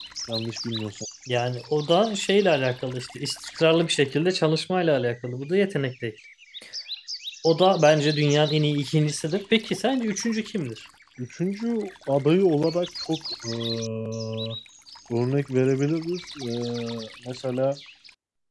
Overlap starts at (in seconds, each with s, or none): none